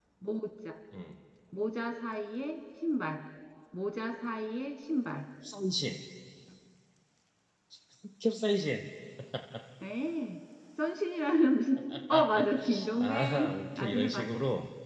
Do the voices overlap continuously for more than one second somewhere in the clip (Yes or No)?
Yes